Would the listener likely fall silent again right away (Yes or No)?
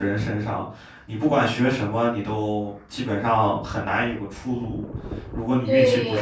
No